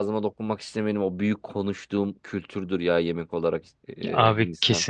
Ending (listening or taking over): taking over